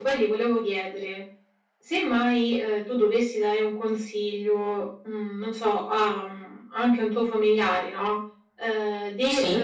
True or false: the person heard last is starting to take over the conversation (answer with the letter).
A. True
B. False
B